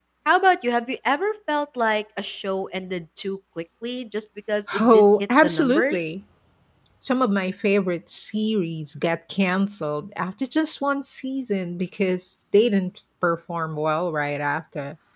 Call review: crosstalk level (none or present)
present